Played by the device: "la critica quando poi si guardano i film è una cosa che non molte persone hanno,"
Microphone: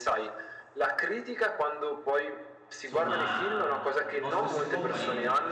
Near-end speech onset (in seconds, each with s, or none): 2.8 s